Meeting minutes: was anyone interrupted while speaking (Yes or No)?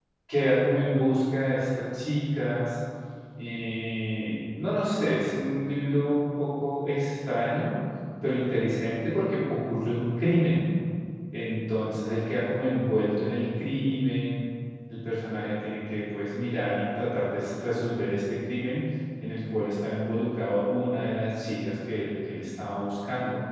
No